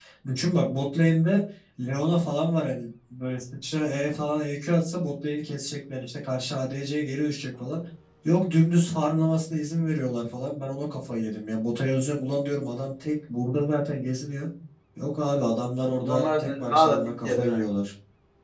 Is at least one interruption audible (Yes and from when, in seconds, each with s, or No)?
Yes, from 15.9 s